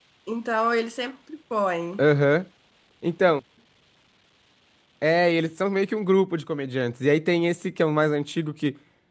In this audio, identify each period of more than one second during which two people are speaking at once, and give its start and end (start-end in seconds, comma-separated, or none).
none